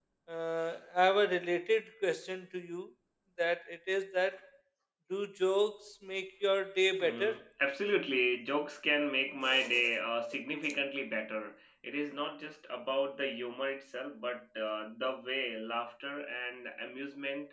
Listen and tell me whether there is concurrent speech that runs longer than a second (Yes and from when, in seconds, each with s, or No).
No